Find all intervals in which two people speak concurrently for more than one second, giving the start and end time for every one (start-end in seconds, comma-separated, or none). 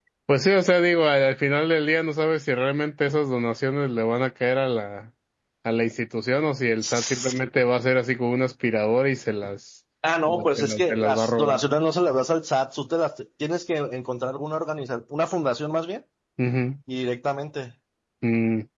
10.3-11.6